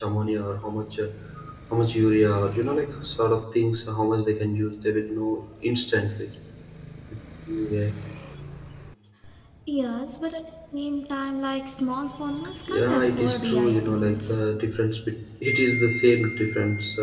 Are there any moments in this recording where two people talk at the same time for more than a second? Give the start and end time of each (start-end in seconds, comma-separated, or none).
12.7-14.4